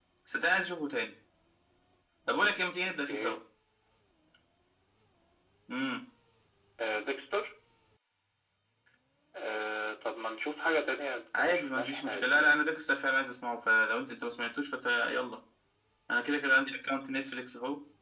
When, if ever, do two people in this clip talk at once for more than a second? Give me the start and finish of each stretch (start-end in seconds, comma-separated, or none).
11.4-12.6